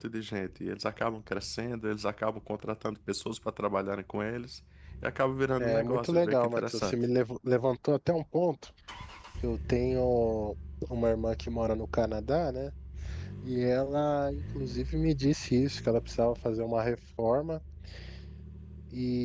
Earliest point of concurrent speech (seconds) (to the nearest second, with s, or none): 6 s